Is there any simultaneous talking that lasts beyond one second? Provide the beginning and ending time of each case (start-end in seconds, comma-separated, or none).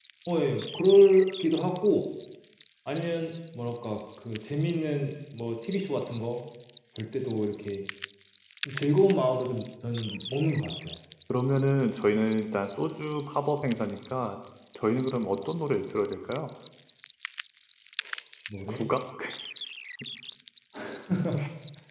none